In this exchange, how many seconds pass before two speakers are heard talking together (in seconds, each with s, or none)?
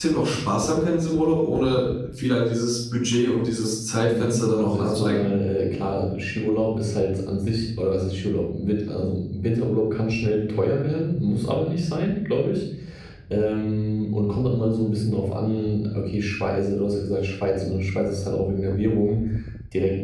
4.0 s